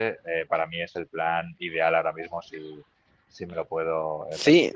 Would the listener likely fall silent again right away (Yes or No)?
No